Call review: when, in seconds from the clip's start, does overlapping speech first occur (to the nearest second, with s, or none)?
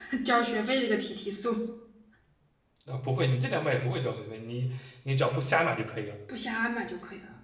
none